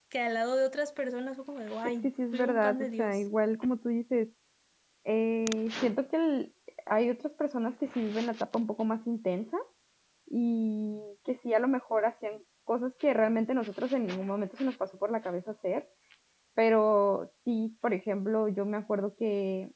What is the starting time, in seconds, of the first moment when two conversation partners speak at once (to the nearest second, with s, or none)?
2 s